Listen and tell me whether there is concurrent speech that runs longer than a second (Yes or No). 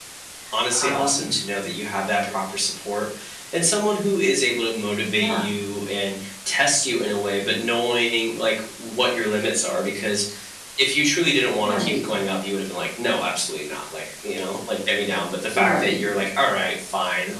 No